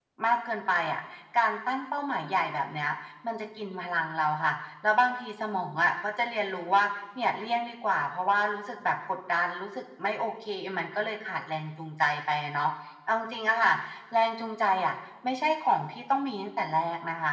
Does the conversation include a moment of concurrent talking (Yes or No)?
No